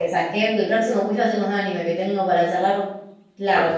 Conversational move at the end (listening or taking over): taking over